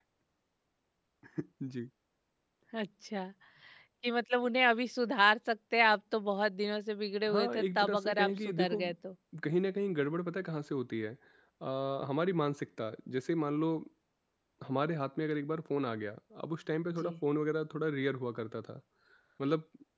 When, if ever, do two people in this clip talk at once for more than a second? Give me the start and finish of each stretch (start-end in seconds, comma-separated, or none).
7.3-8.8